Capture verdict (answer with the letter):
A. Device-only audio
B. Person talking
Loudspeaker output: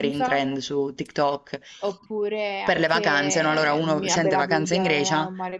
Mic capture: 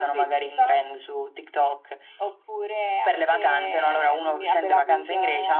A